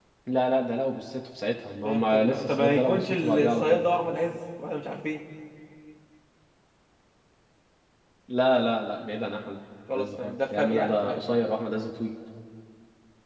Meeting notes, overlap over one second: present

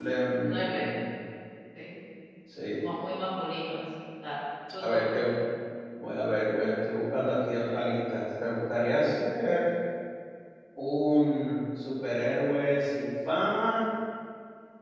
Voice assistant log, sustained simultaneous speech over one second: none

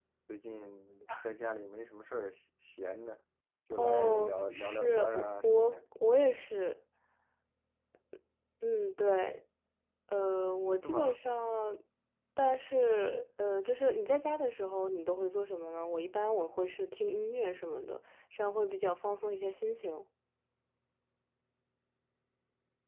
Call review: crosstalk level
present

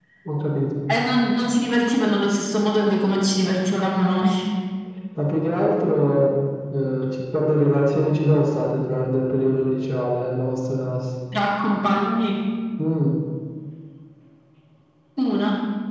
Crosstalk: none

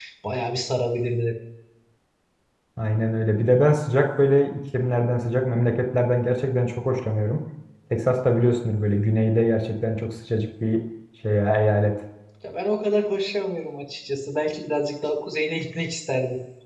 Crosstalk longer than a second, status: none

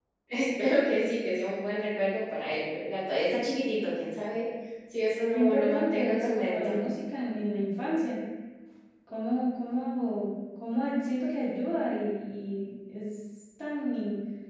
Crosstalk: present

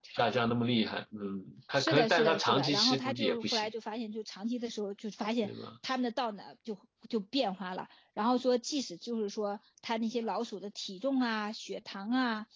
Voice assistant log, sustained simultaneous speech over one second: present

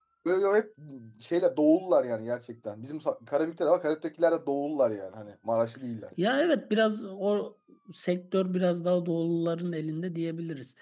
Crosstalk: none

